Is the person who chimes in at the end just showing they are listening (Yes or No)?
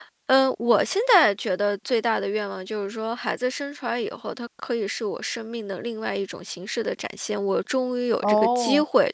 Yes